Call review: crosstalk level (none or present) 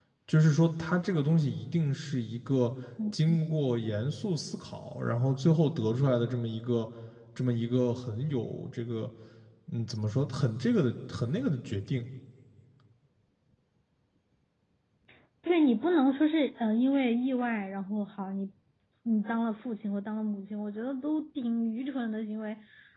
none